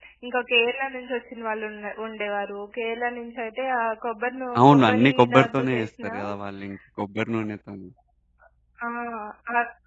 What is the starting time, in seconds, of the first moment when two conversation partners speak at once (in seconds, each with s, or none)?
4.6 s